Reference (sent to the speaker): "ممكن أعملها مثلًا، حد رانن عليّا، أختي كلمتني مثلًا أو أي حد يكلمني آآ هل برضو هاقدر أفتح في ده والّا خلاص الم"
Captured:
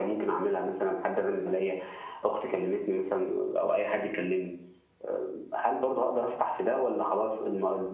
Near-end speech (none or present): none